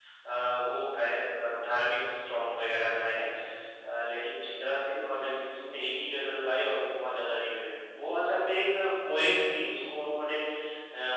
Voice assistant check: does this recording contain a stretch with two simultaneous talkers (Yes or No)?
No